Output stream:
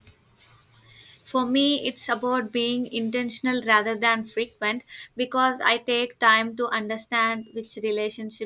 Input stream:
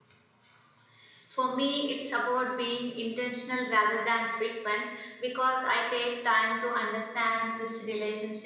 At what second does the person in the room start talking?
none

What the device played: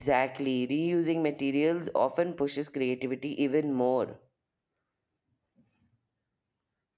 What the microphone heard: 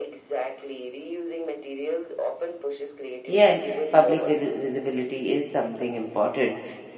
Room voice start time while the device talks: 3 s

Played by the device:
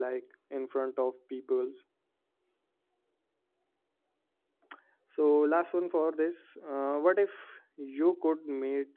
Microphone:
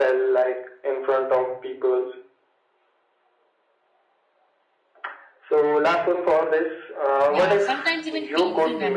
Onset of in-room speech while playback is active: 7 s

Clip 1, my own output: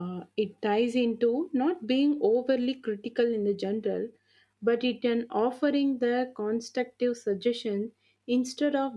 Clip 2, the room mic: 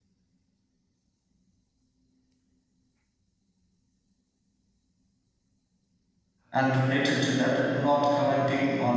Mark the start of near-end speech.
7 s

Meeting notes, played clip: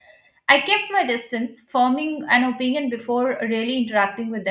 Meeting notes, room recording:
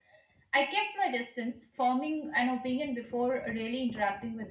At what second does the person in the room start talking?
none

